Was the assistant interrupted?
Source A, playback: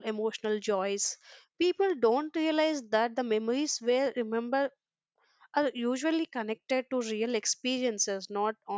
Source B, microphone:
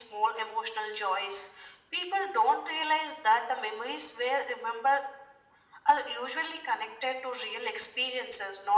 No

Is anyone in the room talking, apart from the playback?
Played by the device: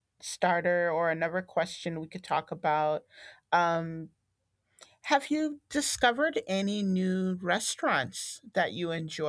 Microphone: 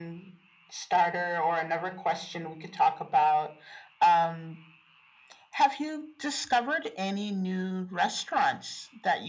No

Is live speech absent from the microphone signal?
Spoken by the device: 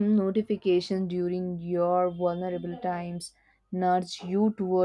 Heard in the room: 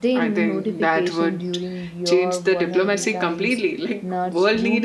No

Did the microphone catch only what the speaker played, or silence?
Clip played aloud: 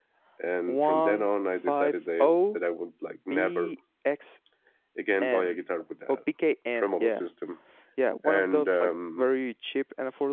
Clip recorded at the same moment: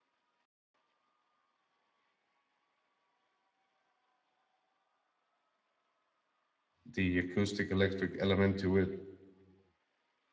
No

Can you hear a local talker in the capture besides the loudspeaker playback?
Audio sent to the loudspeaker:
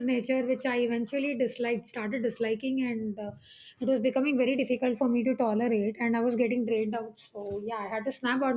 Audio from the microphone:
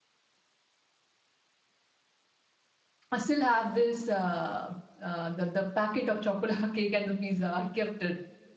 Yes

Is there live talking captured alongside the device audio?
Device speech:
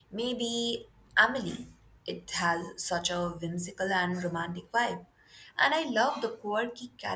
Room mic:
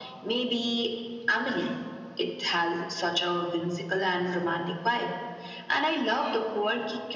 No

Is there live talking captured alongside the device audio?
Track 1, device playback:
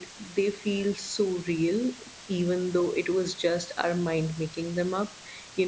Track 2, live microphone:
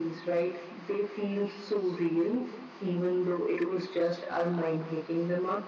No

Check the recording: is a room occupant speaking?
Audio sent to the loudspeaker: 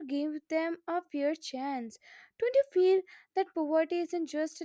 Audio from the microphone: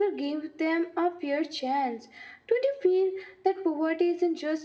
No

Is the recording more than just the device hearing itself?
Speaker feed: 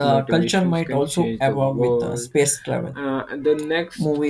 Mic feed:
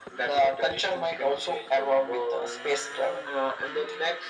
No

